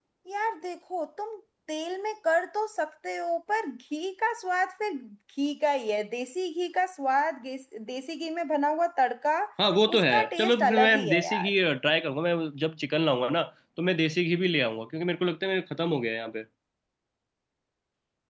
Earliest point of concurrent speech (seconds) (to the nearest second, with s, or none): 10 s